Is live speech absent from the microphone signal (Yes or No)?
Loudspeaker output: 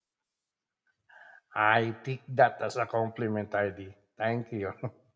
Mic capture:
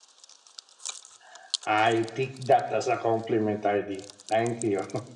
Yes